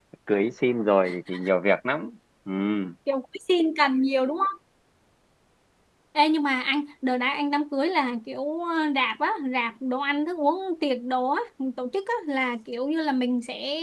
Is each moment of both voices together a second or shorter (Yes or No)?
Yes